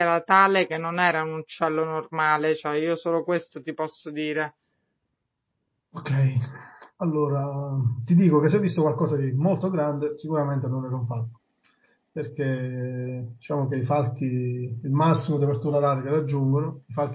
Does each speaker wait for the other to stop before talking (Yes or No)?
Yes